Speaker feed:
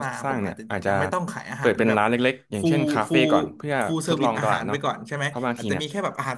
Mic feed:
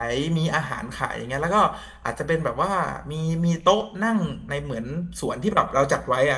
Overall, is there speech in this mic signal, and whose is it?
user only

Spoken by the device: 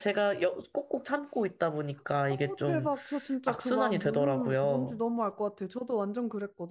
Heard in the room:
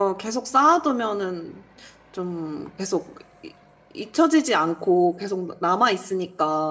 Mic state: user only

